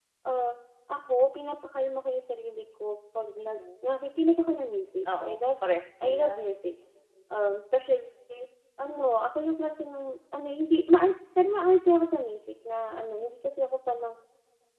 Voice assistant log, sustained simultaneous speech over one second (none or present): none